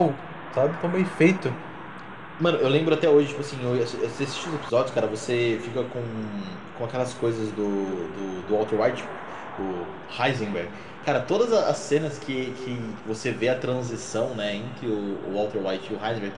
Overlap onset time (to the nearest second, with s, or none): none